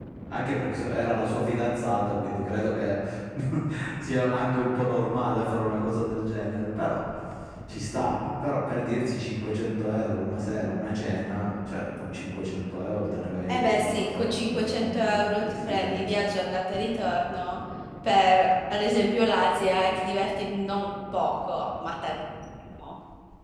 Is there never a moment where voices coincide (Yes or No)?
No